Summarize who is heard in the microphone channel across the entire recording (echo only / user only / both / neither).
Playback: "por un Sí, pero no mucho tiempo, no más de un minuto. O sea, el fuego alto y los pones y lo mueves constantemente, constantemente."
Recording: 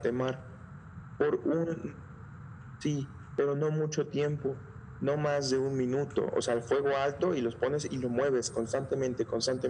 echo only